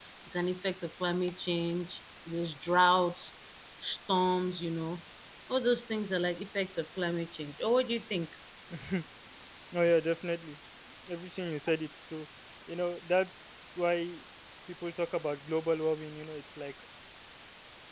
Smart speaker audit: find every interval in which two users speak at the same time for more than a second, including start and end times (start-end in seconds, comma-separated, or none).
none